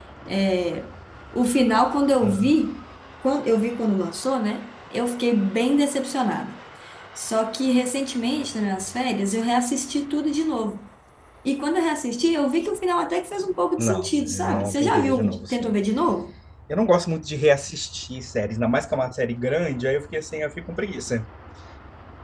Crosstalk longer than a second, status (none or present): present